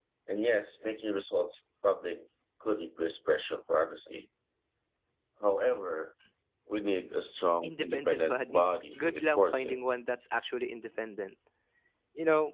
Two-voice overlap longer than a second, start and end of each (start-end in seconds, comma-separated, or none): 7.6-9.8